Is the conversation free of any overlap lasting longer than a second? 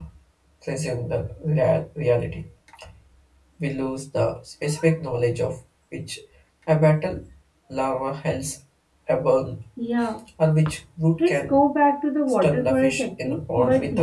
No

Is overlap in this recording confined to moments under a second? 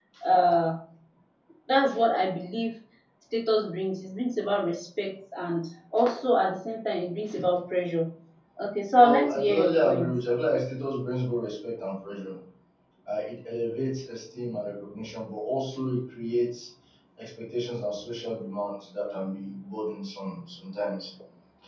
No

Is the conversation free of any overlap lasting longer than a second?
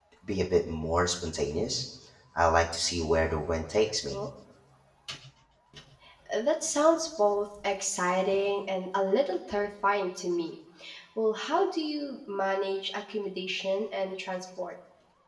Yes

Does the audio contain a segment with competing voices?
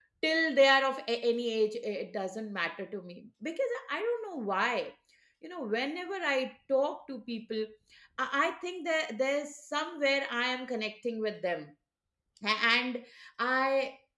No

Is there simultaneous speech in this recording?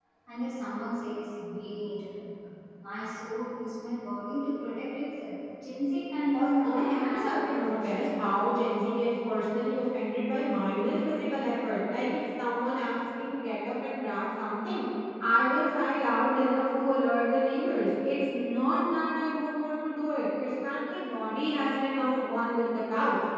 Yes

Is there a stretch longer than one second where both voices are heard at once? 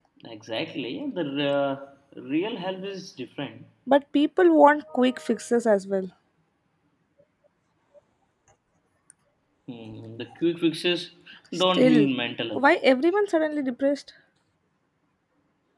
No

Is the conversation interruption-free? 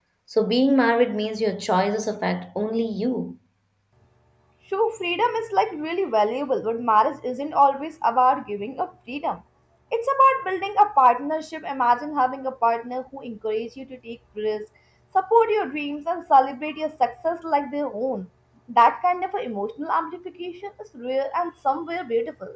Yes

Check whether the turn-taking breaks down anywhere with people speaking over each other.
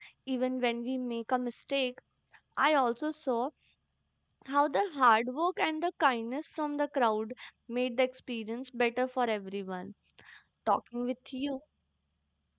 No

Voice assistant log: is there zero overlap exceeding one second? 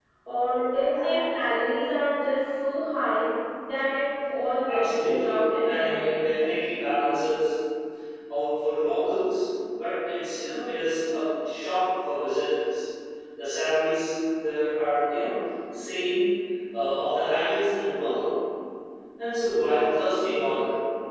No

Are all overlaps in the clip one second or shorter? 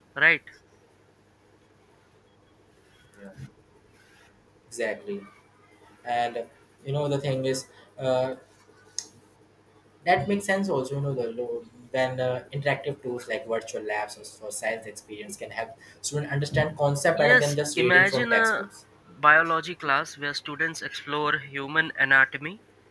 No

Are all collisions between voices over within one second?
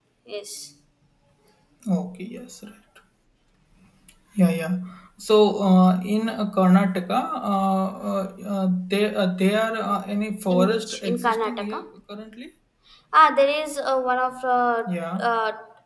No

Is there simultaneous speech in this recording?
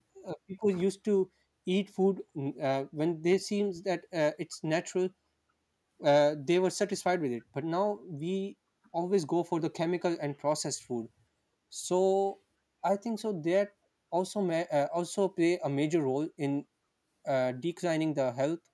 No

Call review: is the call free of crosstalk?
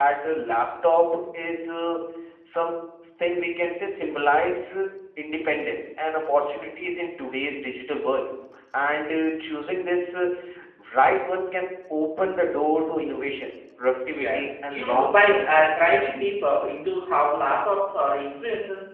No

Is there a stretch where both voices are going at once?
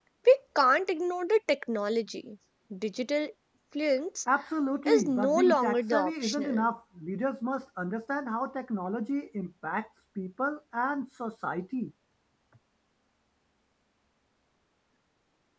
Yes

